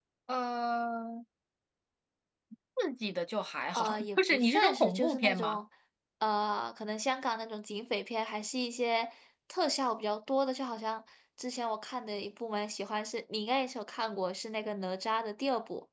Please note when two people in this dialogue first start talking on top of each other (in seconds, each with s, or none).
3.7 s